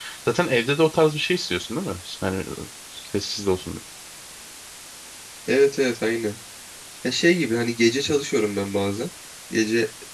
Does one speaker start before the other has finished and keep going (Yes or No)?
No